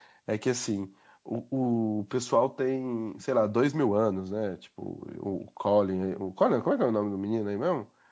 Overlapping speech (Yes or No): No